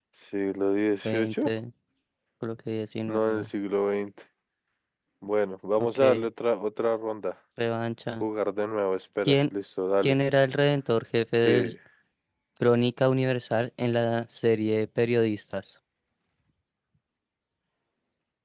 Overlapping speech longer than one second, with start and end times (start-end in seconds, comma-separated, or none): none